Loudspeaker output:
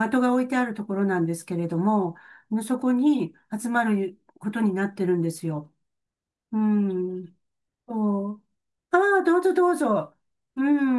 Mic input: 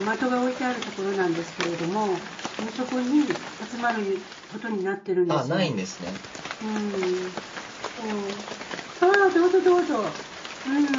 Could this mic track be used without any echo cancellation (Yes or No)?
No